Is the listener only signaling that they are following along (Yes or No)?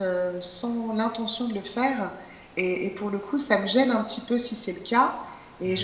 Yes